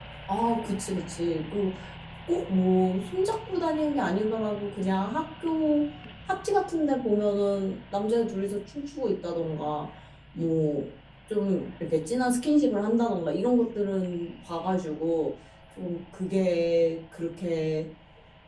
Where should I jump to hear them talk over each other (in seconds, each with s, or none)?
none